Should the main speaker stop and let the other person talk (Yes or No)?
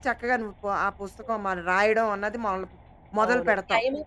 Yes